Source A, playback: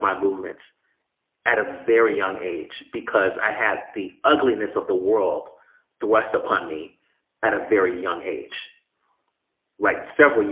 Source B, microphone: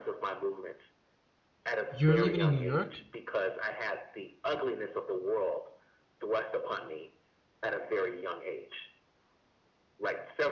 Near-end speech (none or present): present